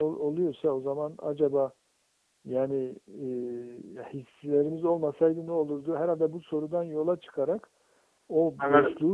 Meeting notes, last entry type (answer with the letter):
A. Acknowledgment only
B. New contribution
A